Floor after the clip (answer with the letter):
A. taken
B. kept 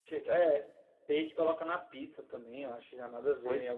A